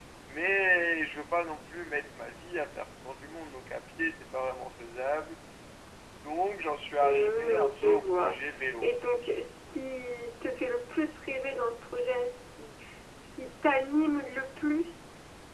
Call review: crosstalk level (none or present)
present